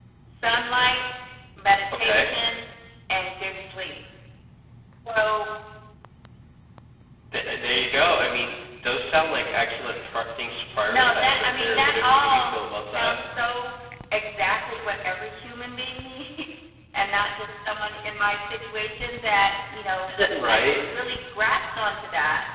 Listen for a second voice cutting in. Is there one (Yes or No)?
Yes